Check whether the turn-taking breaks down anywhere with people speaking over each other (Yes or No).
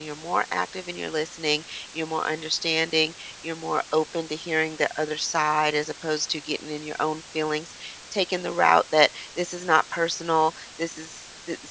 No